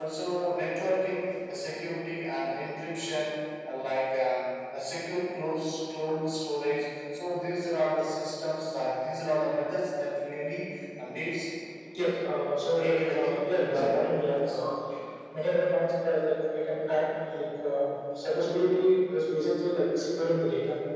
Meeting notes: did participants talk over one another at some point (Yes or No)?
Yes